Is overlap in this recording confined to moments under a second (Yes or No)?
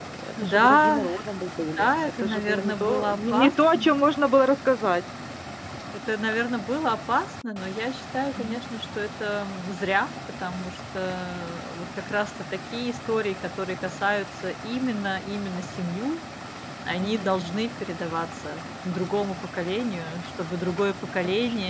No